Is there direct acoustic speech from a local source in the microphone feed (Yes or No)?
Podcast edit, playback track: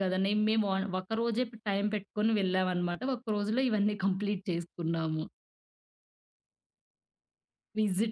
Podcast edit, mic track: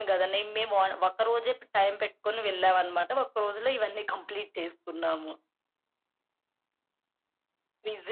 No